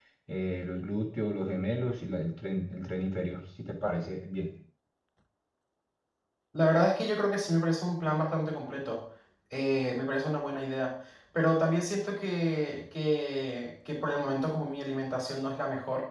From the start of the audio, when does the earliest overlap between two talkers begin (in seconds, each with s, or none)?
none